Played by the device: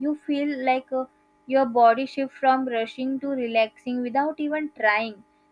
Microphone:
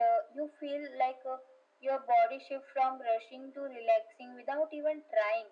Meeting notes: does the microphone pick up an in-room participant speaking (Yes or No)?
No